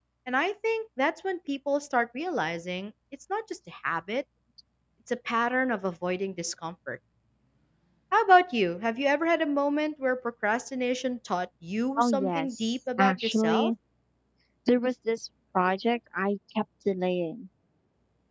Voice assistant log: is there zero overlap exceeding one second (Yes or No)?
No